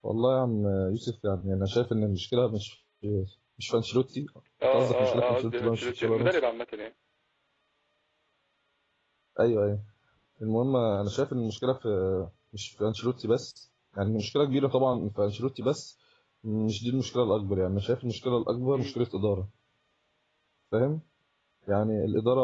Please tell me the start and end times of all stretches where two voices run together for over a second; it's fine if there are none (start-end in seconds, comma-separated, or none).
4.6-6.4